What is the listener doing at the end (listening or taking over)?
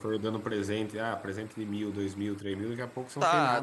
taking over